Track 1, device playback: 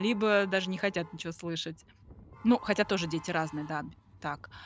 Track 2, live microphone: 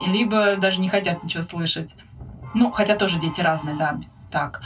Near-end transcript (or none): none